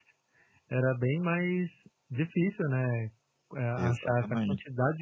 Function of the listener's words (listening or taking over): listening